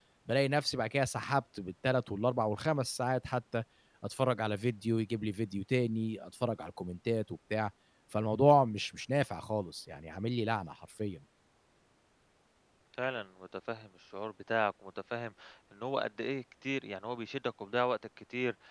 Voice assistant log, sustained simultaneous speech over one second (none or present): none